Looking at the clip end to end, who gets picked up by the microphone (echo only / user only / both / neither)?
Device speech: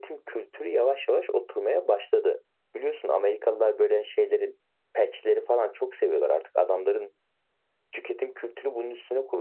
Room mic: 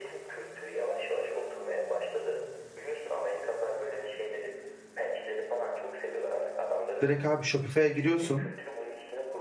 both